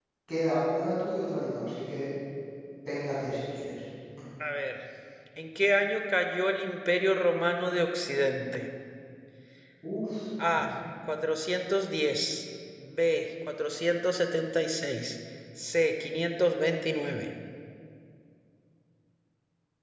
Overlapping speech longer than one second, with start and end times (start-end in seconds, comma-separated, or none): none